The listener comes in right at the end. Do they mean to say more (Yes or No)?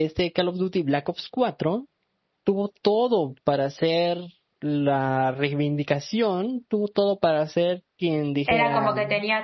Yes